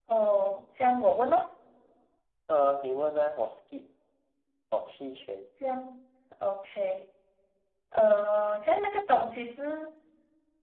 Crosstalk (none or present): none